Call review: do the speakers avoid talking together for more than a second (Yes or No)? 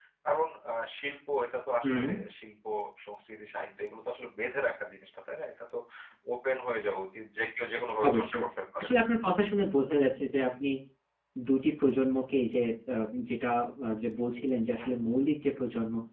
Yes